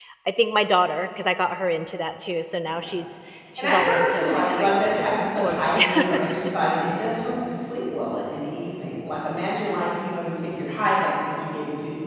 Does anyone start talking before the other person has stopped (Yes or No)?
Yes